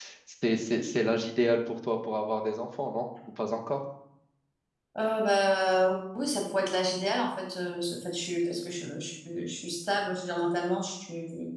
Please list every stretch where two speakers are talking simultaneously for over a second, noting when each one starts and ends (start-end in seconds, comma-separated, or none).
none